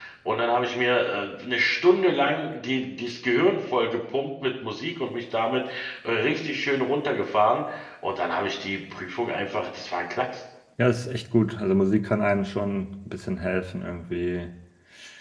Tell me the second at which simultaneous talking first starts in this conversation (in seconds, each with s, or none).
none